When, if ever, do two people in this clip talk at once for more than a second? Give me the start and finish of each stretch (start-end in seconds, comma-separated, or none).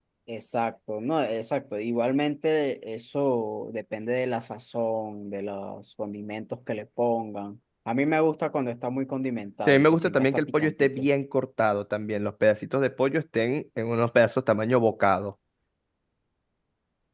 9.7-11.1